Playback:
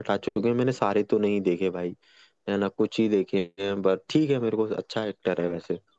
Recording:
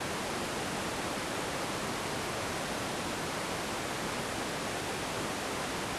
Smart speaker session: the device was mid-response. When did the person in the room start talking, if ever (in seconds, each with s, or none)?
none